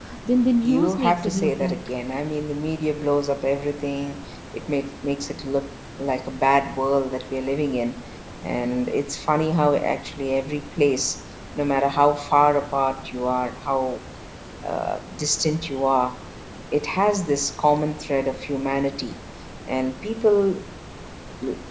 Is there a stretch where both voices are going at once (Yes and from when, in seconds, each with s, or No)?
Yes, from 0.6 s